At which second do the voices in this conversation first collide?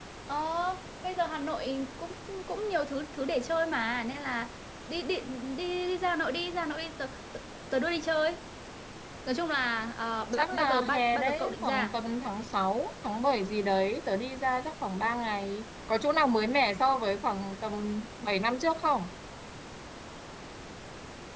10.3 s

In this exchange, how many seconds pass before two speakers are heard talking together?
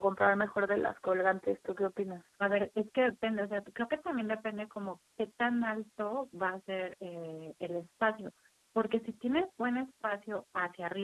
none

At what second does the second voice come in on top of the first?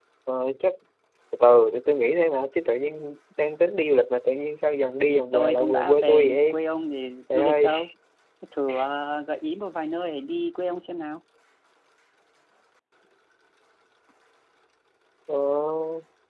5.1 s

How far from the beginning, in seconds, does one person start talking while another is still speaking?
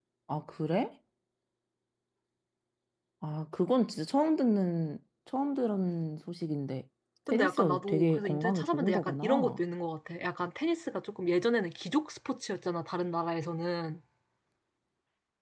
7.3 s

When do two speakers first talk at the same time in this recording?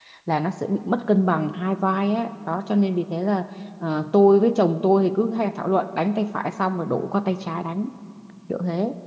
none

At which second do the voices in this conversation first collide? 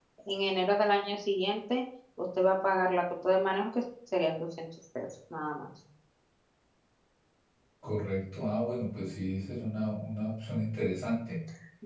none

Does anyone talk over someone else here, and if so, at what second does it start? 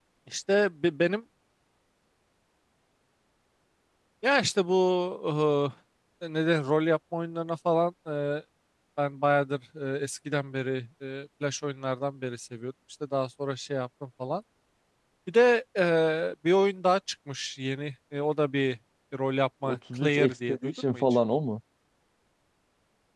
19.6 s

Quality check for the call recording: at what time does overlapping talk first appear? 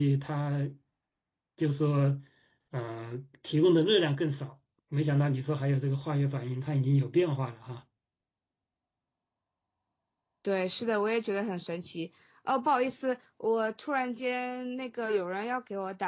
none

